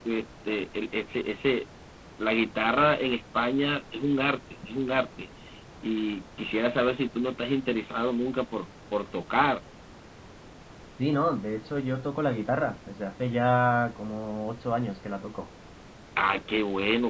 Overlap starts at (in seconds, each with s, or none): none